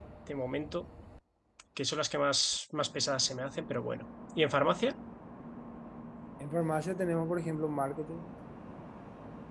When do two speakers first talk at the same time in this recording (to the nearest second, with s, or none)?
none